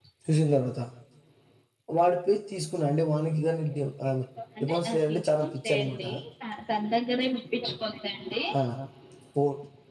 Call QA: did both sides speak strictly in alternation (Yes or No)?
No